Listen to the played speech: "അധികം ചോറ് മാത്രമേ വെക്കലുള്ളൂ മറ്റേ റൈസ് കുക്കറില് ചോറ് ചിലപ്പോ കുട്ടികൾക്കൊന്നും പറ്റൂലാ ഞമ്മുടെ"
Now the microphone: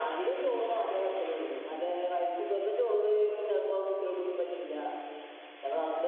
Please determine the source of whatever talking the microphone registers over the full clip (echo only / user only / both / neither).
echo only